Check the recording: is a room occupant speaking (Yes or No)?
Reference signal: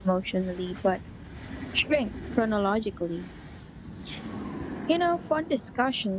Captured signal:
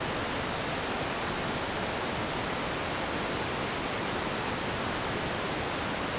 No